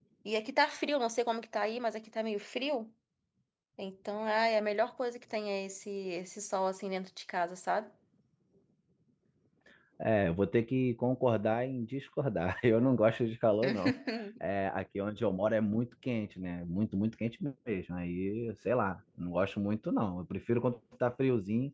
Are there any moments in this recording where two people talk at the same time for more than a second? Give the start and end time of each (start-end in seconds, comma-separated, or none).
none